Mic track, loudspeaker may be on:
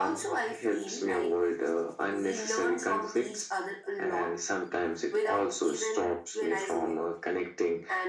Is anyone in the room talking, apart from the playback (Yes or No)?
No